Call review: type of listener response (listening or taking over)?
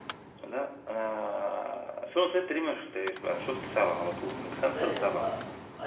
taking over